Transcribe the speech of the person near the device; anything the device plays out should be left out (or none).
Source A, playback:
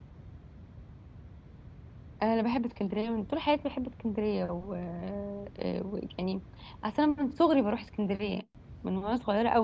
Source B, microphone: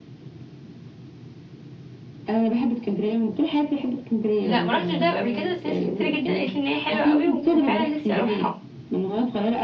لا ما رحتش دهب قبل كده بس ناس كتير جدا قالت لي ان هي حلوه قوي وفعلا نفسي اروحها